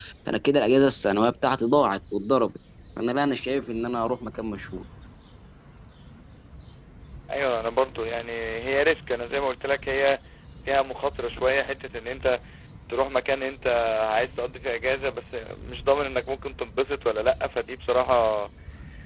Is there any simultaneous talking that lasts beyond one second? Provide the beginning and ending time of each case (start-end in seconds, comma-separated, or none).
none